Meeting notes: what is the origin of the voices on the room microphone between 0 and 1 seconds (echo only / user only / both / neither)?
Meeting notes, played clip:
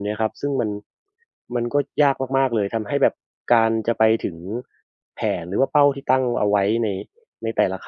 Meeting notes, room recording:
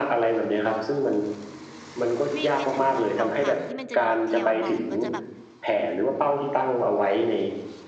echo only